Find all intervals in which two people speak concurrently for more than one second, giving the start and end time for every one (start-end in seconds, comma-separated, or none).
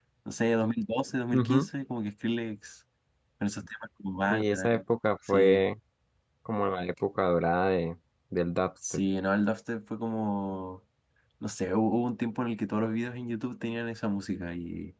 none